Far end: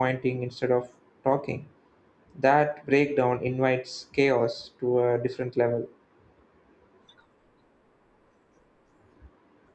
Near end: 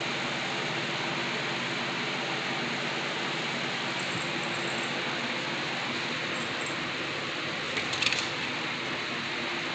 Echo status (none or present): none